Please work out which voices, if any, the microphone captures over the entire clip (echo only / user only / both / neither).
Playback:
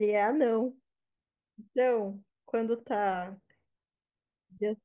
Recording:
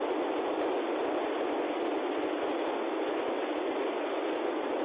neither